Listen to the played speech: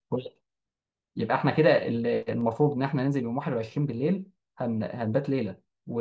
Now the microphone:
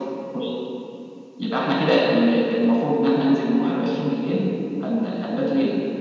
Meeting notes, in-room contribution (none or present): none